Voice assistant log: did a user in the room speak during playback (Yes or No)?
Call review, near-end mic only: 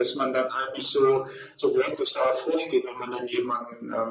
No